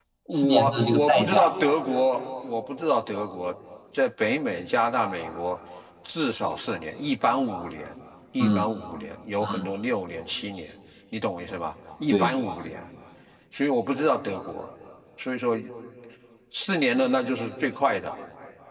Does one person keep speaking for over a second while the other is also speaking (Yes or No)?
Yes